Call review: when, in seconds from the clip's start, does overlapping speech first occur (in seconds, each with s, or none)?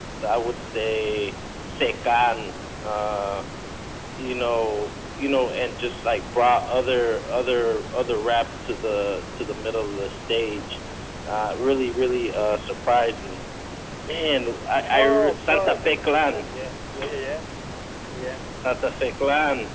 14.9 s